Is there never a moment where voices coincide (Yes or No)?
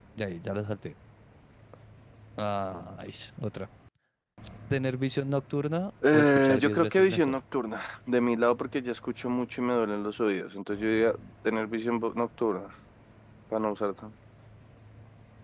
No